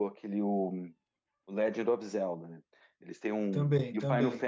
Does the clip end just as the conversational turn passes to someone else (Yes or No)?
No